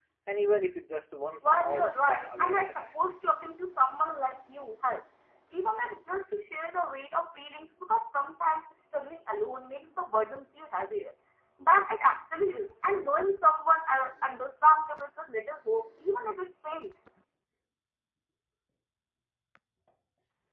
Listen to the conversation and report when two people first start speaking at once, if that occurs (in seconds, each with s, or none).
1.4 s